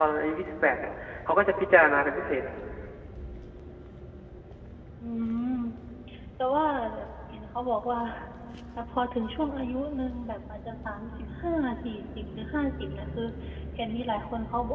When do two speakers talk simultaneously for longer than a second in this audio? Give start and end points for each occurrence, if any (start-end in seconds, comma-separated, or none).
none